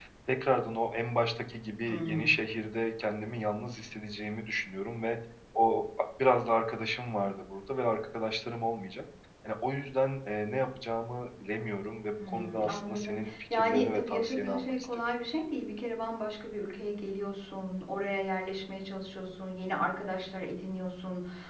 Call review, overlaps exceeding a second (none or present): present